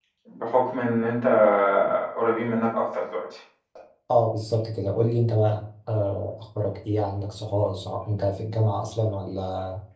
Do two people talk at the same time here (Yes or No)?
No